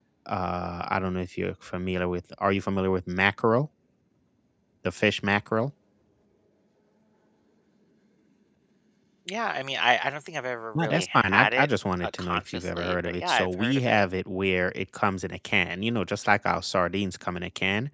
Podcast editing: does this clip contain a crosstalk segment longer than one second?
Yes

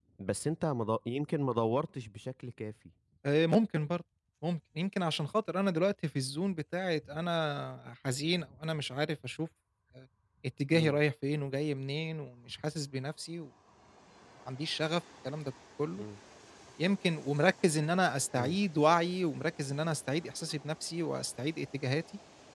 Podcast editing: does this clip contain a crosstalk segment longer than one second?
No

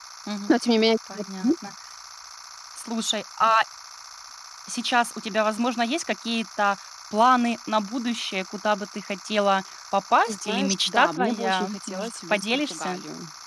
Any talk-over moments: Yes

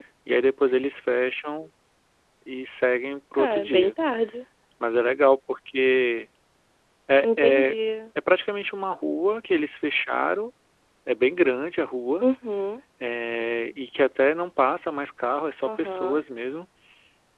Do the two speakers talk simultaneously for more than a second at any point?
No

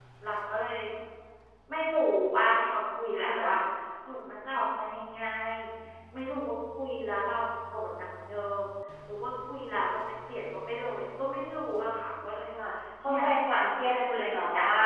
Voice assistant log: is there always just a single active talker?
No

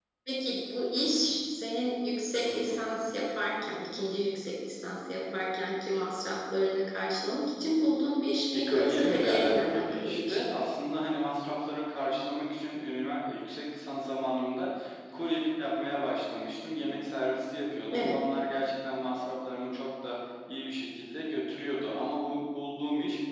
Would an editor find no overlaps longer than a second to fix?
No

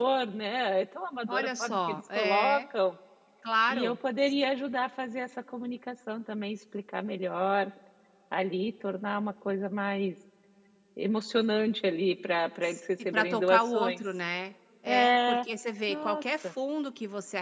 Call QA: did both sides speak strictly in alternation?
No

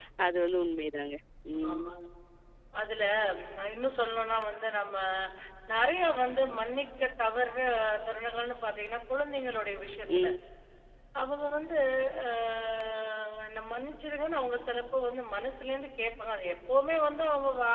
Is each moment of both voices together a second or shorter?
Yes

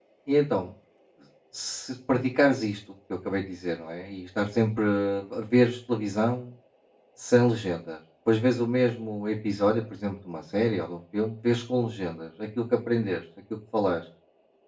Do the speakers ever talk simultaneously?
No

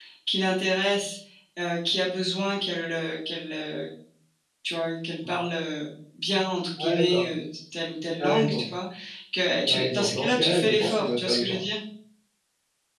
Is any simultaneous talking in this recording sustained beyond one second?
Yes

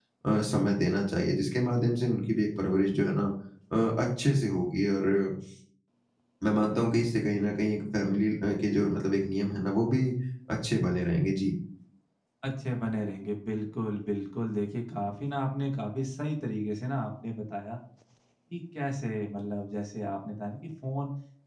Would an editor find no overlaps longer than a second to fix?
Yes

